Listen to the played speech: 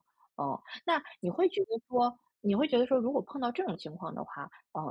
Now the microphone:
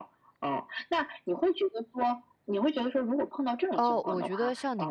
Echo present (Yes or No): Yes